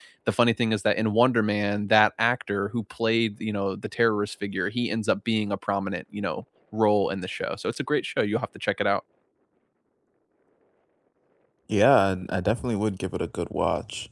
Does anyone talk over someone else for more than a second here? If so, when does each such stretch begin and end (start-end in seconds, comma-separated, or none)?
none